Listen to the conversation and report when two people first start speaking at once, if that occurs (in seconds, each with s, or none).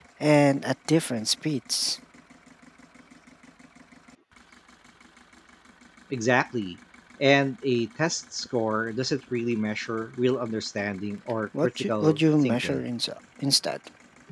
11.5 s